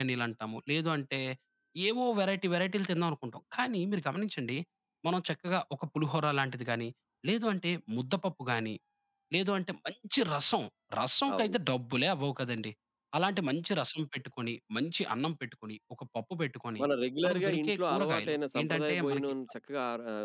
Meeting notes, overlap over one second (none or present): present